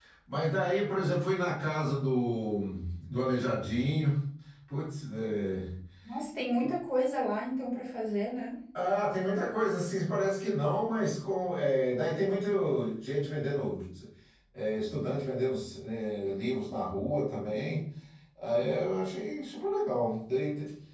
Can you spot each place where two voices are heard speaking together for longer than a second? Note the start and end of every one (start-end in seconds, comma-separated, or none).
none